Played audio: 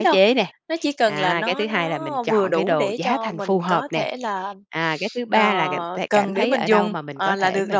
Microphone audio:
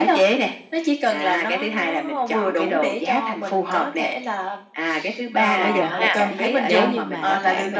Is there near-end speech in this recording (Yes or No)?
Yes